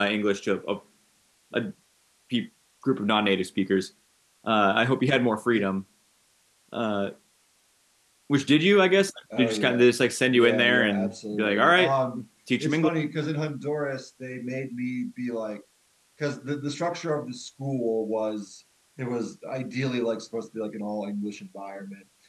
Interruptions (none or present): present